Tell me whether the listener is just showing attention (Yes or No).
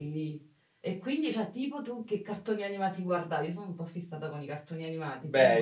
No